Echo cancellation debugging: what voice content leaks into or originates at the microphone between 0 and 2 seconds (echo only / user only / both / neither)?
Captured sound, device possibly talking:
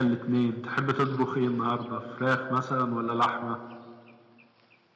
user only